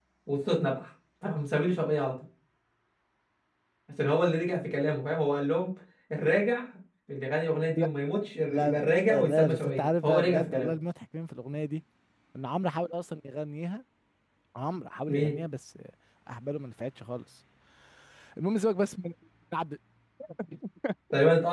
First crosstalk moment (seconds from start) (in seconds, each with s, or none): 8.5 s